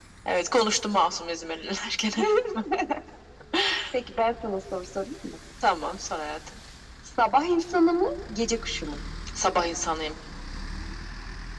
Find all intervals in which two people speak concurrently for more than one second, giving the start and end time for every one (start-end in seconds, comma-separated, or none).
none